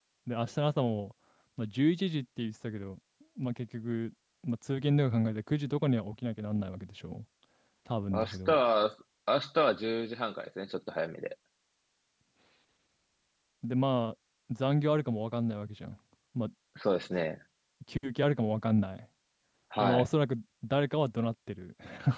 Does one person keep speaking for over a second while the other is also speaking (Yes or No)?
No